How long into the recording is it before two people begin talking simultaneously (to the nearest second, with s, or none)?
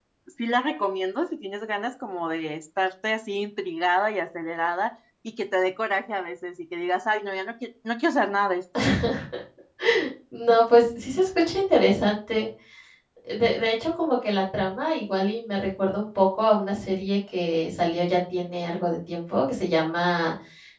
none